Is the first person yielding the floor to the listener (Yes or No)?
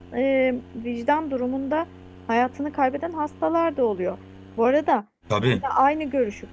No